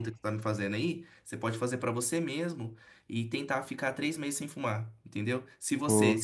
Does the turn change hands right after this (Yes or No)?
No